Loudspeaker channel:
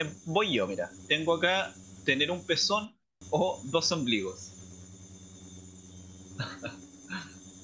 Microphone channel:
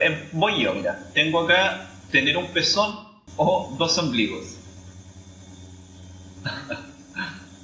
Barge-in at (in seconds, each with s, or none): none